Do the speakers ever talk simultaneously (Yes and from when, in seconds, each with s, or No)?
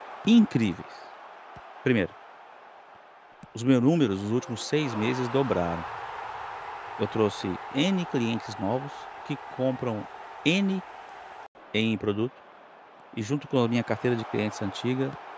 No